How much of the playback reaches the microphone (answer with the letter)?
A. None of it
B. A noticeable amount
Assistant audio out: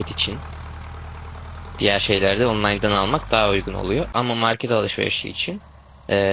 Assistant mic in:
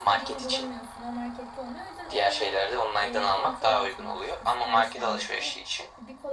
B